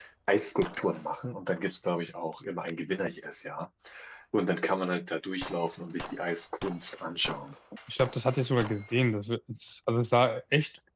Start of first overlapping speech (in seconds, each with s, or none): none